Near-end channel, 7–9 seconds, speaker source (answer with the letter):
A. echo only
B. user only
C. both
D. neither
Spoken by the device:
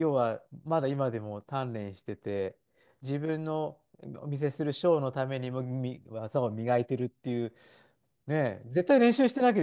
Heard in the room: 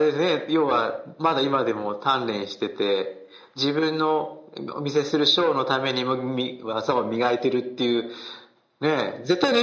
A